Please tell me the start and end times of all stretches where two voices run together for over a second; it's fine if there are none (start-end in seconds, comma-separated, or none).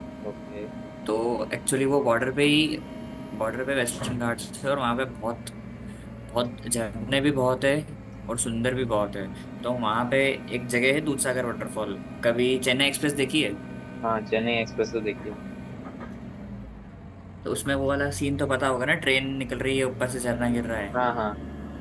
none